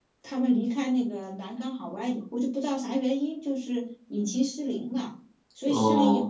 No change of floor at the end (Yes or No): Yes